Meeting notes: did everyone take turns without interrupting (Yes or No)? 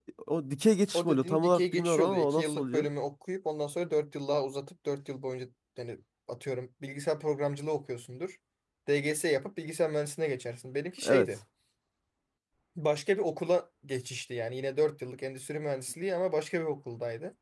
No